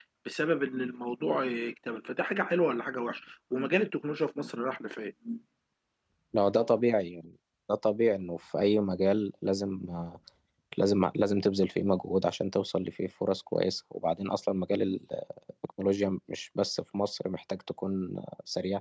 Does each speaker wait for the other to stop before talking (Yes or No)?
Yes